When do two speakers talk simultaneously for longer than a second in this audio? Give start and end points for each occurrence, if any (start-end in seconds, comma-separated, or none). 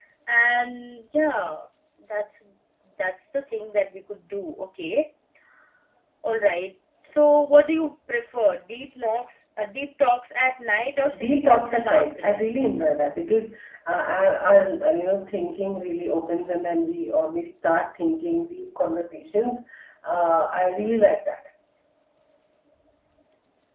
11.2-12.5